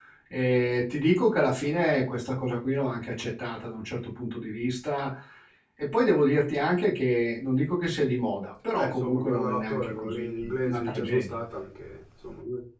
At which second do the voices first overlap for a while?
9 s

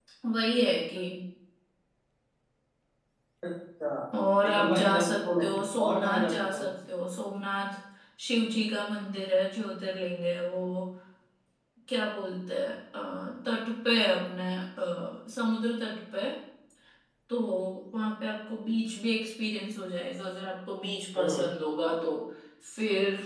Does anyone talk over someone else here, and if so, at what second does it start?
5 s

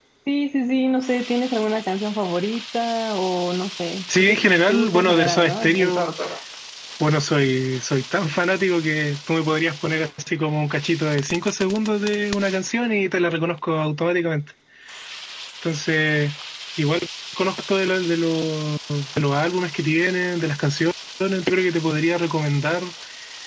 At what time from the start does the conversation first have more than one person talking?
4 s

